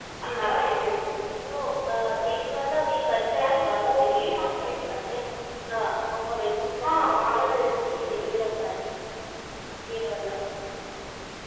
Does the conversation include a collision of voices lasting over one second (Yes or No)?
Yes